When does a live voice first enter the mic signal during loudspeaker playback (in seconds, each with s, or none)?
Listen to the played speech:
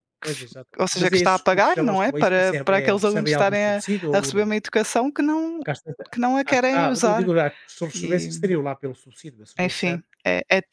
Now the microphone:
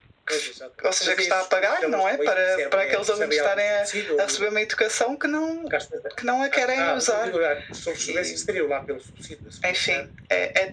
none